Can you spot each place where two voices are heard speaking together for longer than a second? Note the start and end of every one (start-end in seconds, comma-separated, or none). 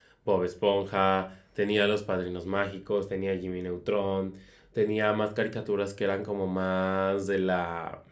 none